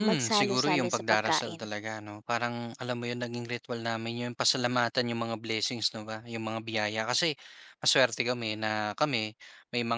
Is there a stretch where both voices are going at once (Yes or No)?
Yes